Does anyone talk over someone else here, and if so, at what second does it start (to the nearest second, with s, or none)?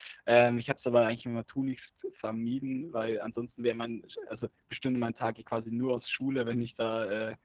none